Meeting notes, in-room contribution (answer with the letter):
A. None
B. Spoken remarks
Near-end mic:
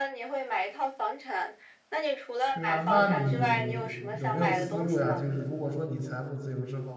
B